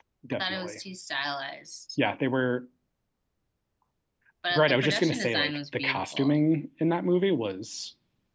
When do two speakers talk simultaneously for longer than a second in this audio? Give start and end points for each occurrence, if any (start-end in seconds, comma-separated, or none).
4.5-6.4